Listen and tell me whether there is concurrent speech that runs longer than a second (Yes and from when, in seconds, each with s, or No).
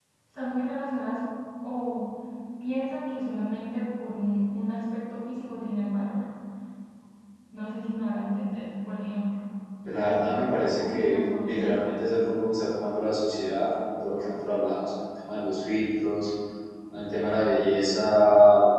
Yes, from 10.0 s